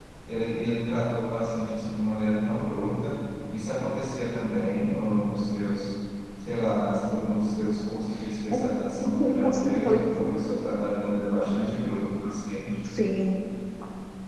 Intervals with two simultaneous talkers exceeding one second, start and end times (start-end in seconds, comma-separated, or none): 9.1-10.6